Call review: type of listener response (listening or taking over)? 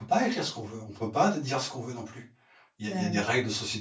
listening